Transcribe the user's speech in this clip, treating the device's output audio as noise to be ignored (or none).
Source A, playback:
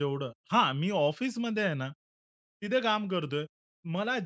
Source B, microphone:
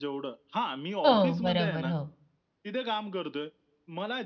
हो, बरोबर. हो.